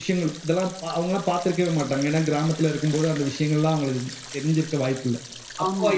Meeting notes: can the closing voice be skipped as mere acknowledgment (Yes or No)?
Yes